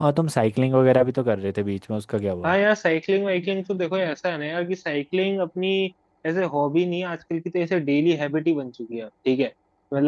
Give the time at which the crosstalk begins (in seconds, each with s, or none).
none